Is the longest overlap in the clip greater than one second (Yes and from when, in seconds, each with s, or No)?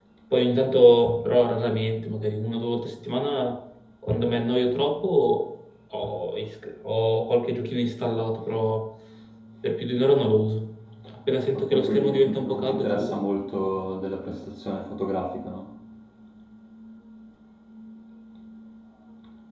Yes, from 11.5 s